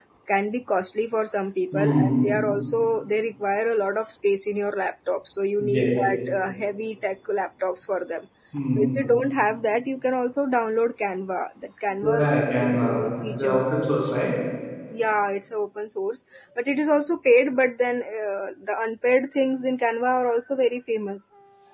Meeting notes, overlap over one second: present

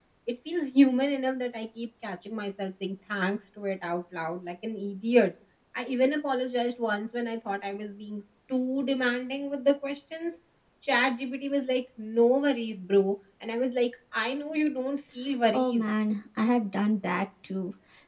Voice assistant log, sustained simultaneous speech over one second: none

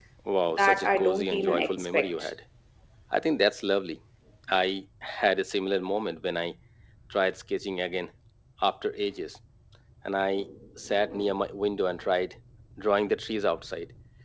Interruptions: present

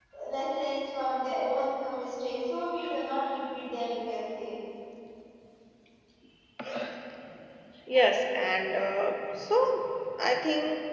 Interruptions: none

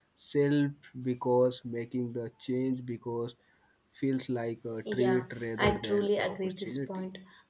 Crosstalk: present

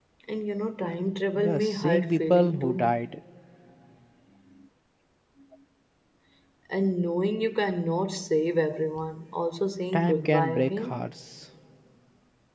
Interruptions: present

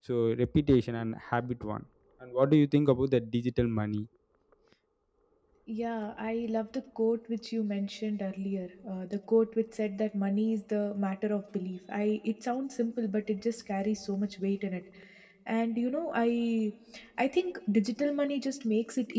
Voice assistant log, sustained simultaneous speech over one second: none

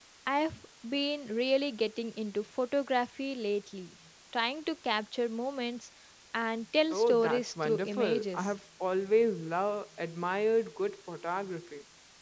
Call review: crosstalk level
present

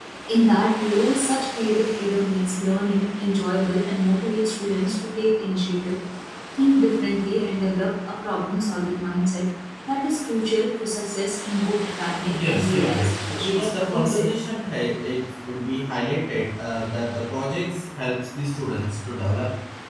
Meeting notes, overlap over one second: present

